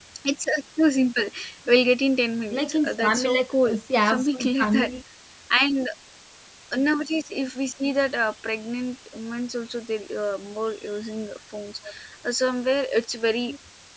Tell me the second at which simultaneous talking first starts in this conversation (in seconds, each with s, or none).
2.5 s